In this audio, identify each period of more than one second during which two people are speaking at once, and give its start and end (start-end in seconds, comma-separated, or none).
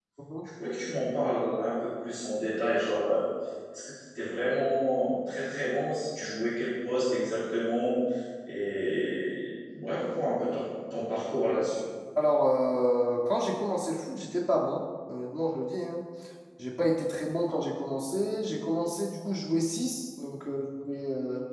none